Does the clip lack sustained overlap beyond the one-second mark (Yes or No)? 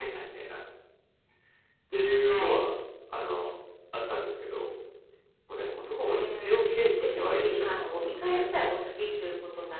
No